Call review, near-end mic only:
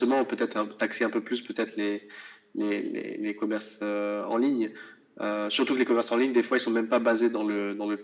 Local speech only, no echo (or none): none